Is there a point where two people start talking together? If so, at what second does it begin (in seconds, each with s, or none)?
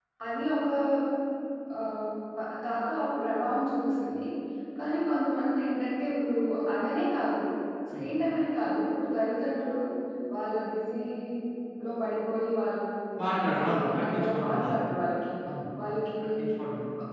13.4 s